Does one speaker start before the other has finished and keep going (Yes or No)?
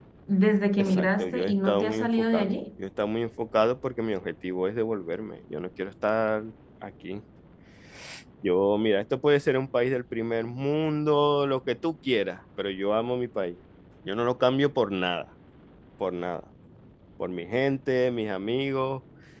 Yes